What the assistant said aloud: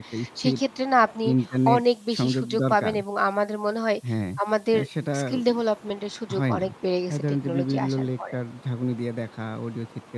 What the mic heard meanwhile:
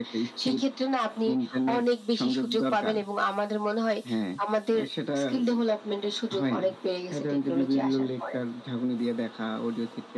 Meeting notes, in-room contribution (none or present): none